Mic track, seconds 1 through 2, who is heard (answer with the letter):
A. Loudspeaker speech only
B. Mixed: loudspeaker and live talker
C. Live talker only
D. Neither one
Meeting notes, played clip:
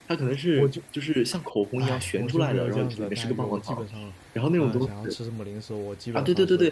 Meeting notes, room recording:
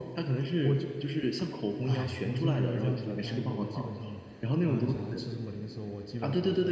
A